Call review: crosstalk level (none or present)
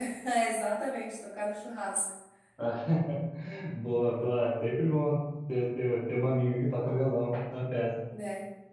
none